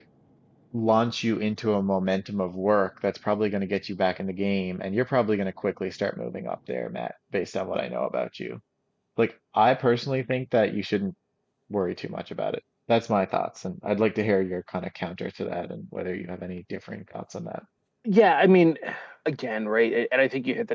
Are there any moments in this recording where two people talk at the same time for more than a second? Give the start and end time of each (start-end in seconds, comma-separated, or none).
none